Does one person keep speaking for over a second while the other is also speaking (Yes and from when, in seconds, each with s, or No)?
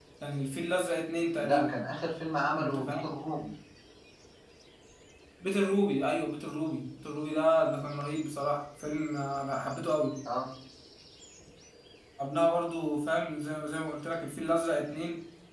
No